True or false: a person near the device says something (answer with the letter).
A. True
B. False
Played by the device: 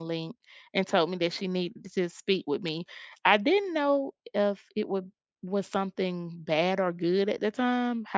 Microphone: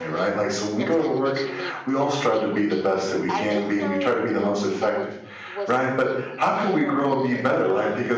A